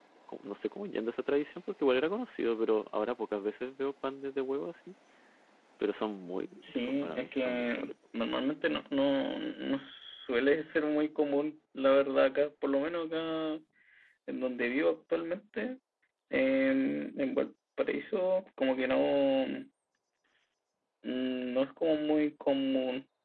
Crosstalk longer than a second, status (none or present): present